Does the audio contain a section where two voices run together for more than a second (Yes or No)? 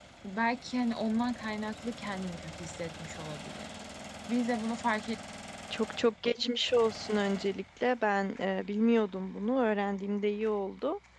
No